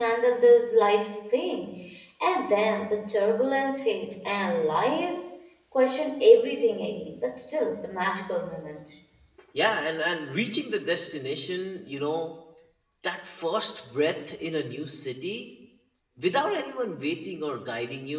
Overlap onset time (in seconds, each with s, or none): none